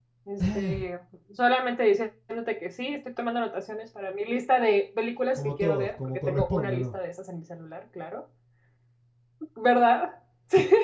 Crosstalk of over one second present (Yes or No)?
Yes